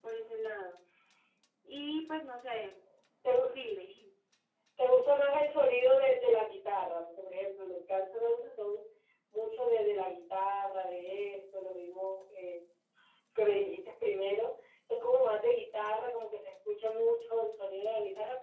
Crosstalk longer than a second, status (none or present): none